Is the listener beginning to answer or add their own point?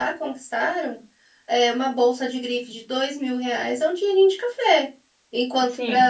No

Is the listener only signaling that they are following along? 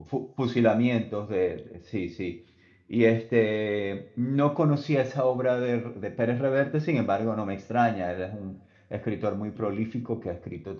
Yes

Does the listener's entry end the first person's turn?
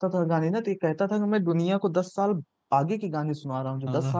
No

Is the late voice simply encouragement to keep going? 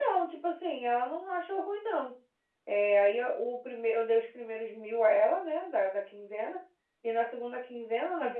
Yes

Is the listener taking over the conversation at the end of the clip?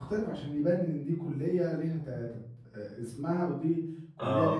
Yes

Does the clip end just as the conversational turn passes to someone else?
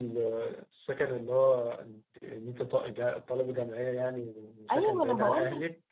Yes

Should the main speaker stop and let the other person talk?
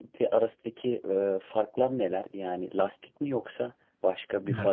Yes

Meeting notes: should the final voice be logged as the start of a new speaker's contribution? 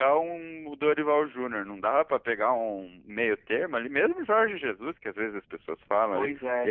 No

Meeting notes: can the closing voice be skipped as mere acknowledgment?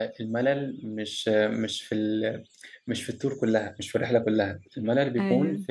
Yes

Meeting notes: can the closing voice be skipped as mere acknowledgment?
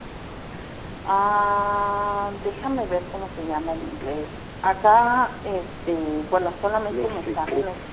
No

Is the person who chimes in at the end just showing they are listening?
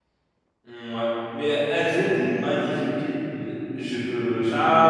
No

